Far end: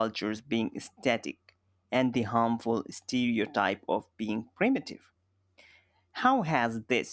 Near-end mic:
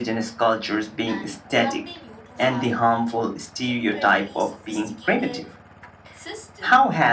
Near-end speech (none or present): present